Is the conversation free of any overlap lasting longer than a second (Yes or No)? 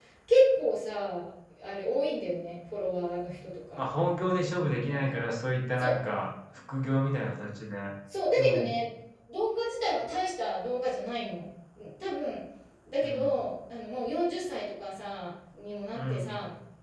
Yes